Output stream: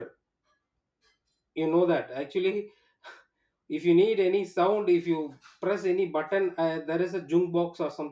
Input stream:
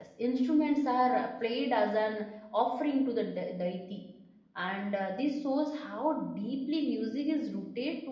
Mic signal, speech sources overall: user only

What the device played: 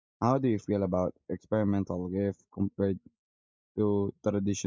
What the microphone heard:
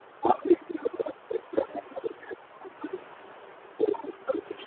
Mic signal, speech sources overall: echo only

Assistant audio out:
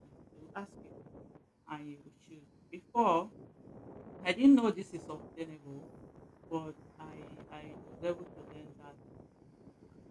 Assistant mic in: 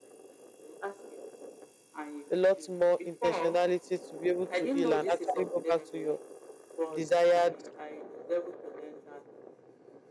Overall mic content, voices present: both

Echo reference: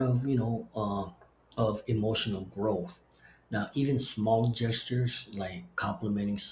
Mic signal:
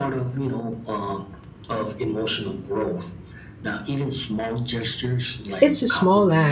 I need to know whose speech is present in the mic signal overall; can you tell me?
both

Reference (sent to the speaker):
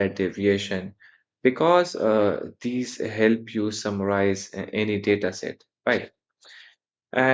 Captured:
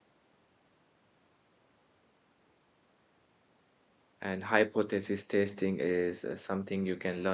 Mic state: user only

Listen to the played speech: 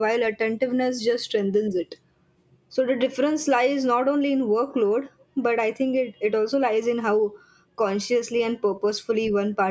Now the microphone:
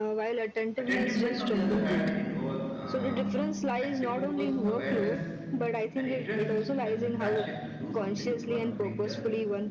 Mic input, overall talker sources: both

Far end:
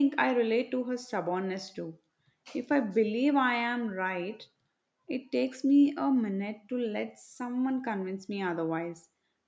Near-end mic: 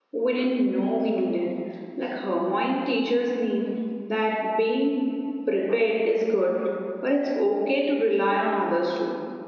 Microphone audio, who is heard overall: user only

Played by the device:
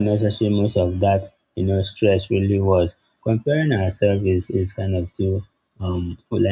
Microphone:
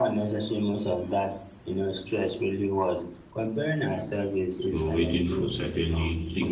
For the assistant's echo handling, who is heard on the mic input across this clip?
both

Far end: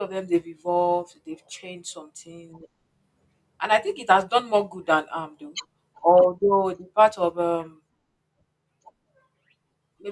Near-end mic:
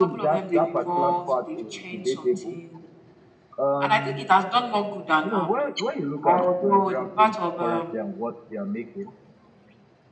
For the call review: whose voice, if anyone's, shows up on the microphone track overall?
both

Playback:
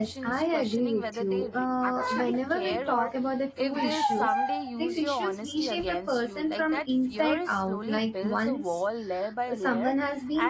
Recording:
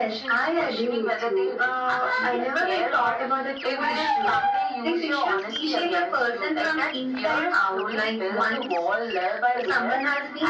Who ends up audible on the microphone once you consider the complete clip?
echo only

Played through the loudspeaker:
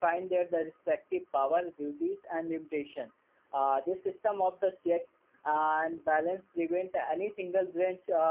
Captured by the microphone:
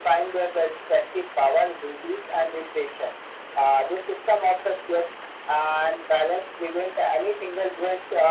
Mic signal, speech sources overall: echo only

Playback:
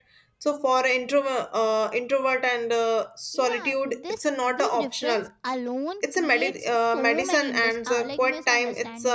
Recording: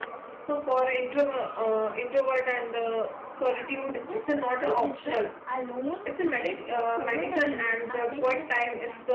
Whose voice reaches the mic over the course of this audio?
echo only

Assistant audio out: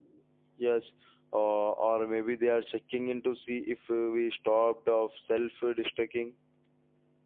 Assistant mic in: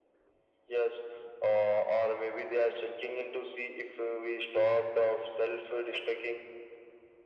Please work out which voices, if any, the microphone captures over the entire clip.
echo only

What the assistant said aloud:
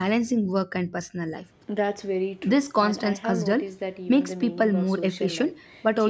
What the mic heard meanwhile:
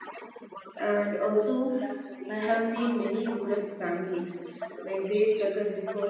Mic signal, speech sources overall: both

